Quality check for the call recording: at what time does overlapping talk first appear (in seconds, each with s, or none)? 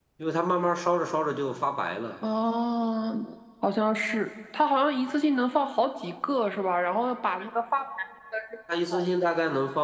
none